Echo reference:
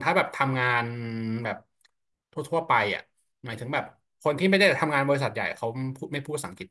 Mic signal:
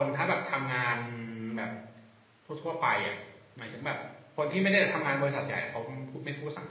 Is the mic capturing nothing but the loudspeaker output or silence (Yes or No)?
Yes